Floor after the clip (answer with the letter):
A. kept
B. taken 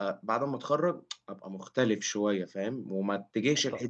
A